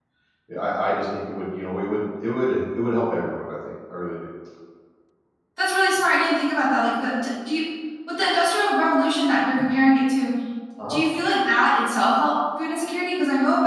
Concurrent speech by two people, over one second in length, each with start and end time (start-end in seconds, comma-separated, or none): none